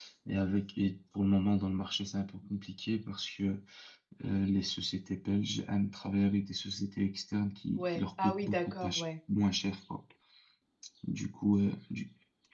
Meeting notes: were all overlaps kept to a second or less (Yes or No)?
No